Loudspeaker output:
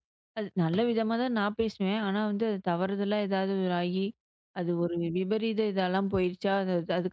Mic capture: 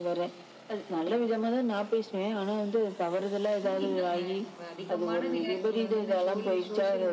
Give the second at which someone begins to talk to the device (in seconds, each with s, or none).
3.5 s